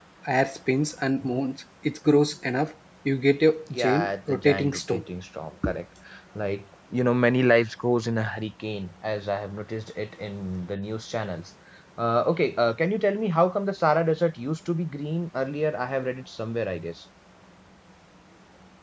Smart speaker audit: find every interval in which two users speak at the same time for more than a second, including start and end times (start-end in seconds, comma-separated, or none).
3.7-5.0